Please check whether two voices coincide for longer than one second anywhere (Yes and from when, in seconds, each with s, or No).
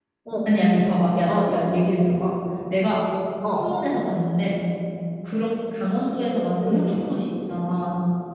No